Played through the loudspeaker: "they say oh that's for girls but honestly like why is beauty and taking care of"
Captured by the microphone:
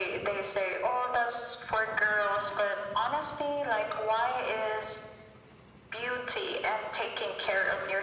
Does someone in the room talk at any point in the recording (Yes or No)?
No